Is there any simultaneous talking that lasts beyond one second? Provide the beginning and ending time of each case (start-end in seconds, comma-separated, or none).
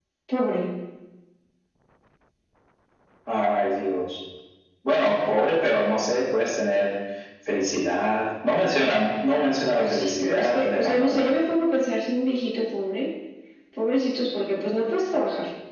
9.8-11.3